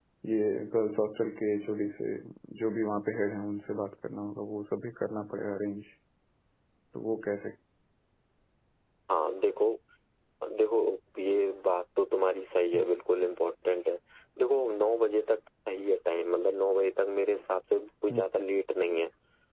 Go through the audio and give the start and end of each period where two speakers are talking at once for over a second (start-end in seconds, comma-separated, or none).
none